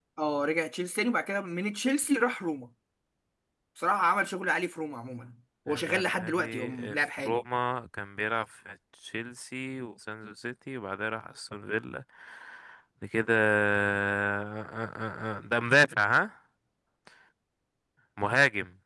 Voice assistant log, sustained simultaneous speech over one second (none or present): present